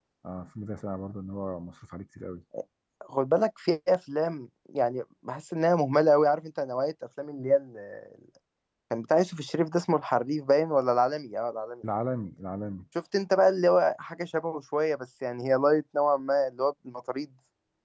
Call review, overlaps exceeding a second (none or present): none